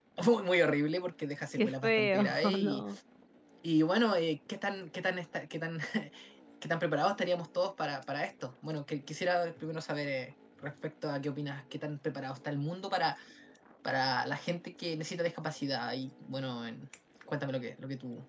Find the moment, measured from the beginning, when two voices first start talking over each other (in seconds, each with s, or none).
1.5 s